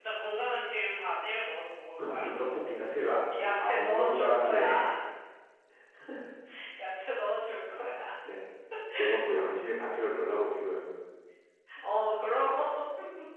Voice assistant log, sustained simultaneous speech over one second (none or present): present